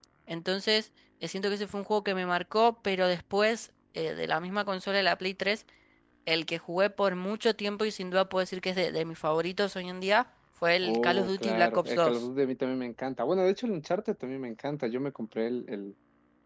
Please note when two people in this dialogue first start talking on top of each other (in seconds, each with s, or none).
10.8 s